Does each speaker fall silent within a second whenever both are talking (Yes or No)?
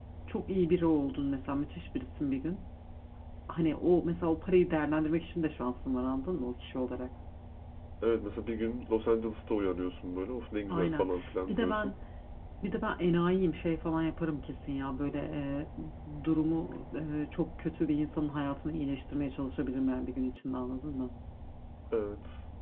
Yes